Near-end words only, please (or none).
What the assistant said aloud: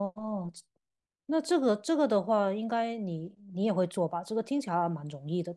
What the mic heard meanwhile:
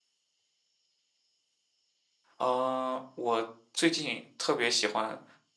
啊、我最近特别喜欢